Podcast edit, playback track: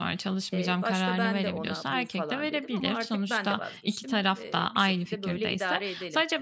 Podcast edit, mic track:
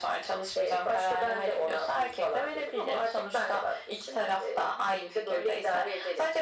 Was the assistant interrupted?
No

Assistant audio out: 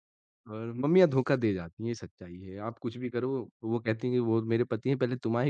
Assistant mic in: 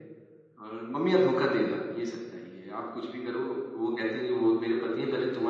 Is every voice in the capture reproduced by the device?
Yes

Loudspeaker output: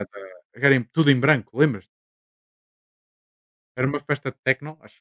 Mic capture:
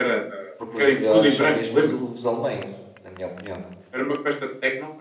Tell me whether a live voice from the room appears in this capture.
Yes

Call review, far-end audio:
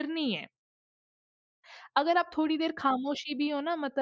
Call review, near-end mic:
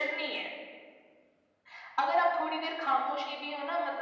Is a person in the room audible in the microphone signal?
No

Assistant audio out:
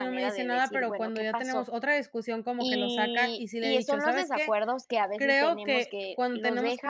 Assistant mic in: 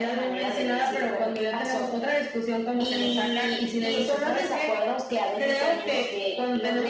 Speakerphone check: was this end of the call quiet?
Yes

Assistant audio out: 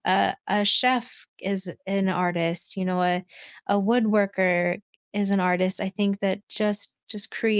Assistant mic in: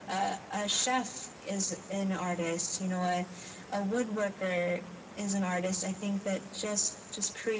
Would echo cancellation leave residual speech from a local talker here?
No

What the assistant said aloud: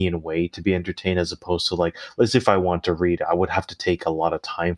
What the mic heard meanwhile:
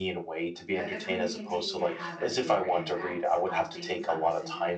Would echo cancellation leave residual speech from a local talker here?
Yes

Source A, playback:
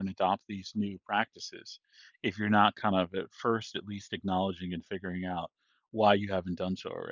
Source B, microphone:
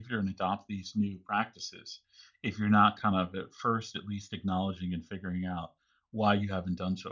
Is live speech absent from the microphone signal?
Yes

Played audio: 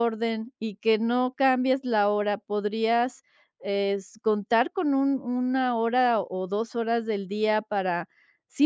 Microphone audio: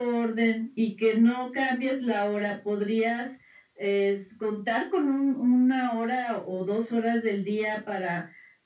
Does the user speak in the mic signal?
No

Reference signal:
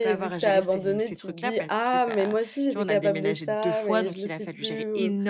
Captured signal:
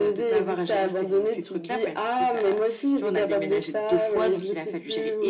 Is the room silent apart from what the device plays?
Yes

